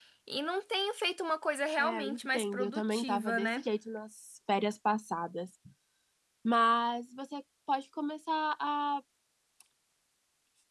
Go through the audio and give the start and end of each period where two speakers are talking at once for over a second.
1.8-3.6

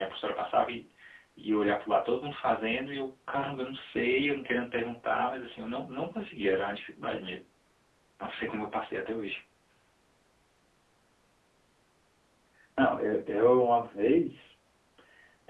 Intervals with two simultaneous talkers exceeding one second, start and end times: none

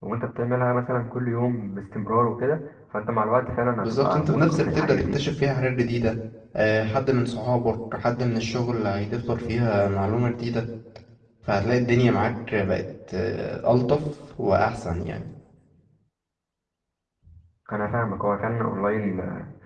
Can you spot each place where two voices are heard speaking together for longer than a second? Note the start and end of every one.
3.8-5.3

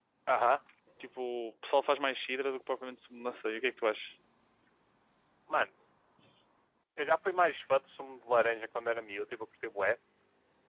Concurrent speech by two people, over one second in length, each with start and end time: none

